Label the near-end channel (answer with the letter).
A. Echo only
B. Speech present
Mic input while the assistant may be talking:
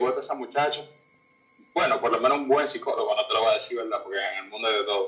A